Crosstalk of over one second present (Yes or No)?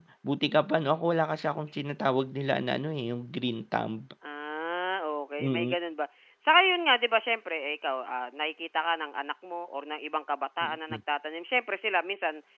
No